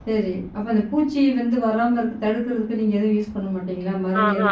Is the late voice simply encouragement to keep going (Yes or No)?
No